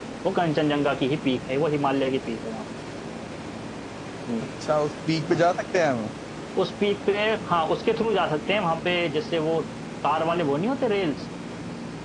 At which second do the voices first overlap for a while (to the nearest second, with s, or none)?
none